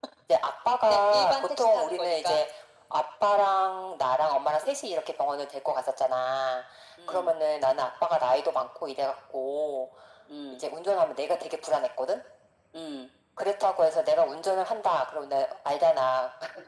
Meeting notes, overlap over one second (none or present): present